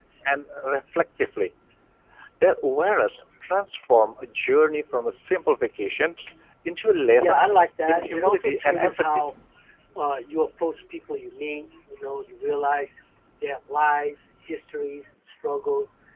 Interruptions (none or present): present